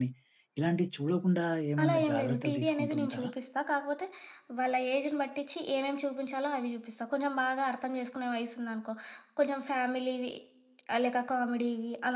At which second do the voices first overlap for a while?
1.8 s

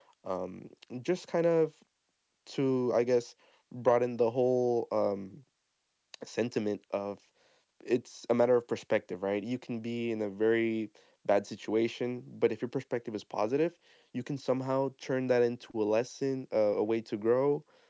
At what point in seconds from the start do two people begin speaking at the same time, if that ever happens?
none

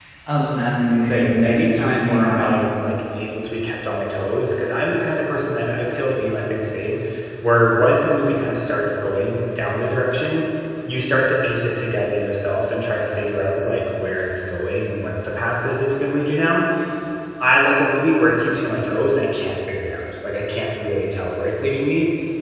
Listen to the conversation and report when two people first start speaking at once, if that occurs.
1.0 s

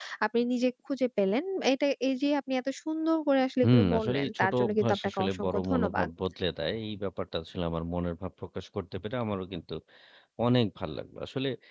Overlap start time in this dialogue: 3.6 s

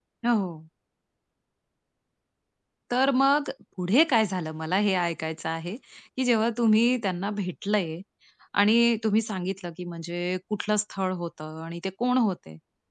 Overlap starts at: none

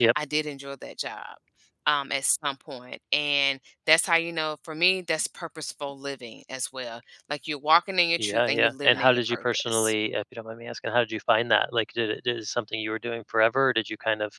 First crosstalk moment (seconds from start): 8.2 s

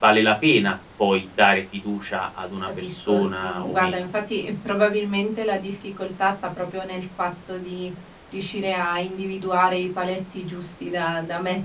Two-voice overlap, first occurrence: 2.7 s

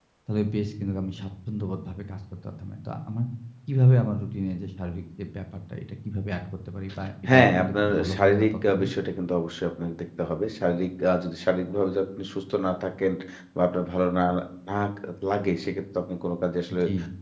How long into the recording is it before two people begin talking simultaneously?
7.3 s

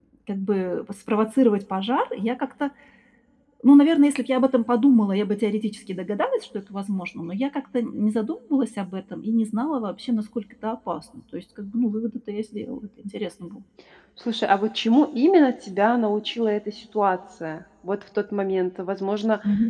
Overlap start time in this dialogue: none

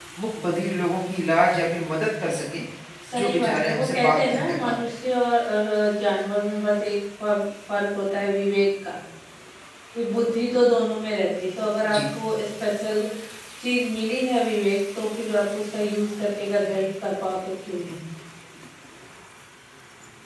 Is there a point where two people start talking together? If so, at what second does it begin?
3.2 s

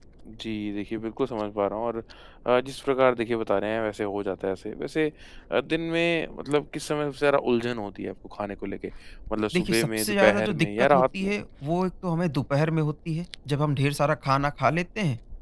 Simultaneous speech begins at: 9.5 s

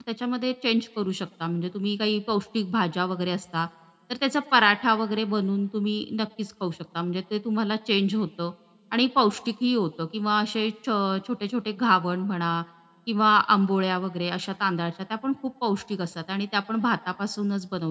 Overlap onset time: none

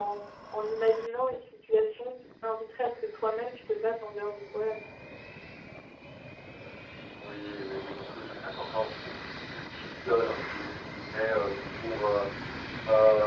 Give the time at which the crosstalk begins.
none

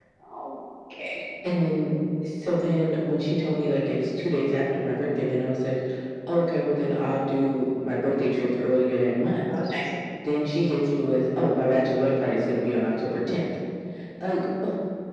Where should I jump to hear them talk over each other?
none

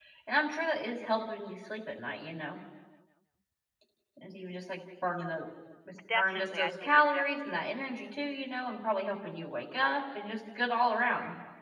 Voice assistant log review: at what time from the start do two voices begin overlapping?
6.1 s

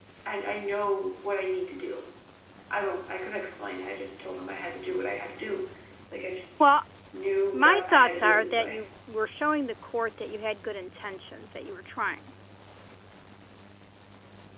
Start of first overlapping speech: 7.5 s

